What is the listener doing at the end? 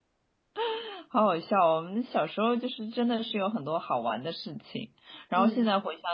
listening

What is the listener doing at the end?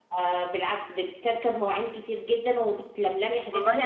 taking over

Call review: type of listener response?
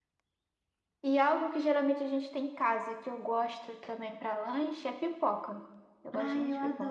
taking over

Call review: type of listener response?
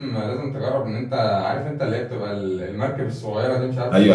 taking over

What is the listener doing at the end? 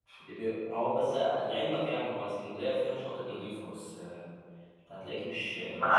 taking over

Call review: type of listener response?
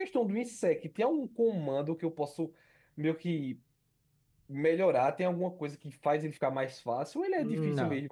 taking over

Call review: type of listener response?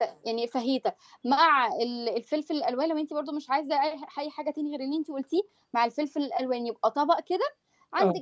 listening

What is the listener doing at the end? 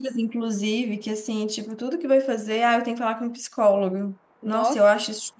listening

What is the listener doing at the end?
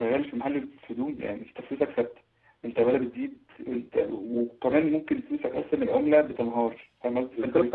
taking over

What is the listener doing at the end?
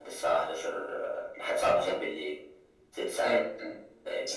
taking over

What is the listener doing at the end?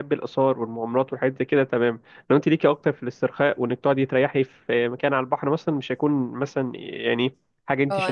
taking over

